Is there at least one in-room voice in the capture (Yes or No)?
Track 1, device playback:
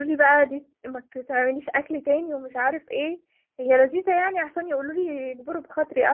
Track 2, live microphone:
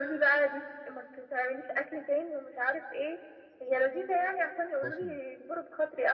Yes